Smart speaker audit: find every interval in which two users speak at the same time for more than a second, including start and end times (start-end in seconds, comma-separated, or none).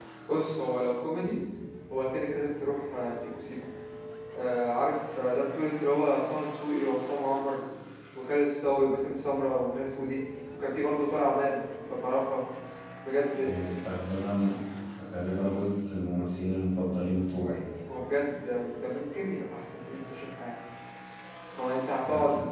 none